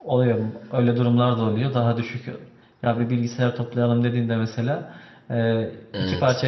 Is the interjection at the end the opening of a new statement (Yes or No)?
No